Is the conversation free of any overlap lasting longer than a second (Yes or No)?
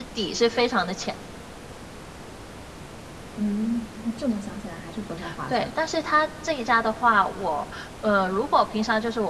Yes